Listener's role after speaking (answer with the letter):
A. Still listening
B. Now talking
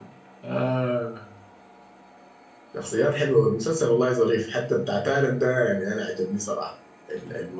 A